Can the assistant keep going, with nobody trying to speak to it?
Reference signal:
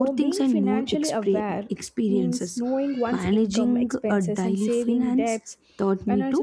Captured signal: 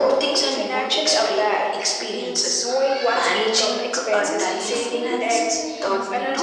No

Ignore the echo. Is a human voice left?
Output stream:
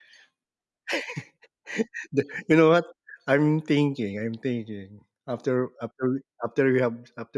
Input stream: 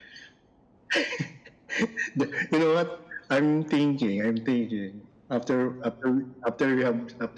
No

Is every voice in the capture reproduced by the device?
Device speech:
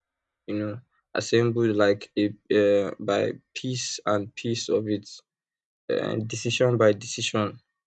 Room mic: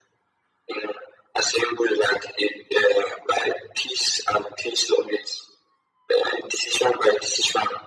Yes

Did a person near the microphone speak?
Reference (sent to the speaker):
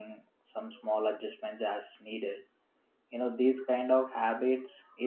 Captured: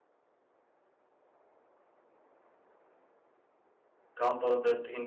Yes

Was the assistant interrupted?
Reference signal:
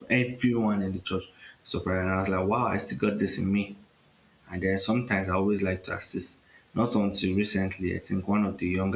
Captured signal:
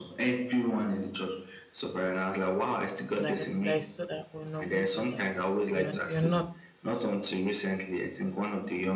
Yes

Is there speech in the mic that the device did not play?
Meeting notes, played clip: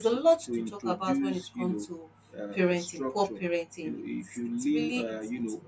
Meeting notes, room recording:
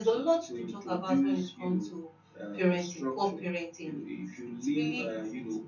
No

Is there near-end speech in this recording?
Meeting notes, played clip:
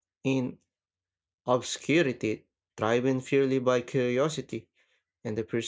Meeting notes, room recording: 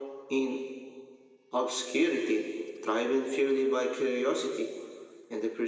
No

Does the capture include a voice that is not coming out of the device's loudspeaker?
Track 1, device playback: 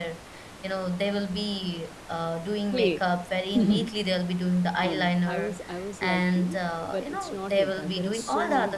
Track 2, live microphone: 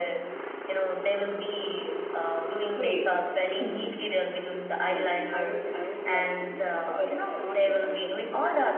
No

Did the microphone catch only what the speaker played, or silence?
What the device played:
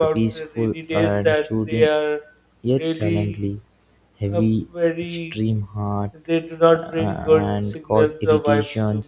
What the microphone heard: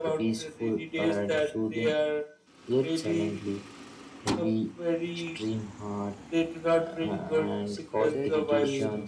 No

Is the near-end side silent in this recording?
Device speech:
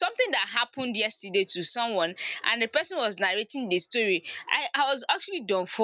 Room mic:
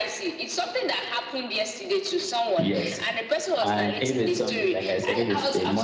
No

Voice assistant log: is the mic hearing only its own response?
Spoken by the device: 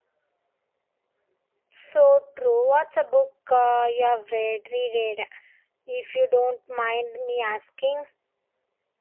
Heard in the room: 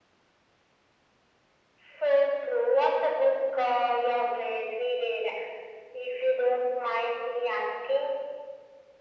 Yes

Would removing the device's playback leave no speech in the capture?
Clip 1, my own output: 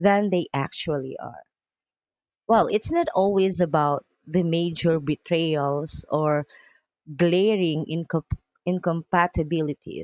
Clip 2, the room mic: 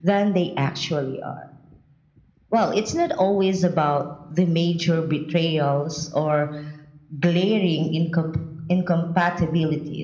Yes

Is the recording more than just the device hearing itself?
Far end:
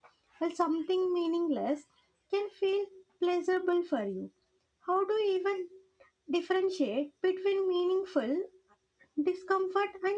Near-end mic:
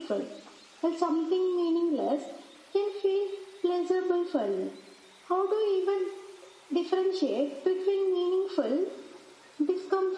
No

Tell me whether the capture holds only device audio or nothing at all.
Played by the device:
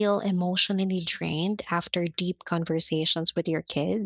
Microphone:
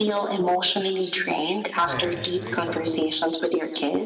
No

